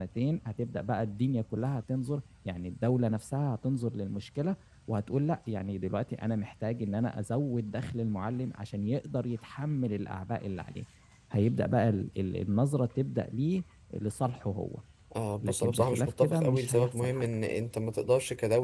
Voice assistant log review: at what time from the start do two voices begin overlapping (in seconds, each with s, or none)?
15.4 s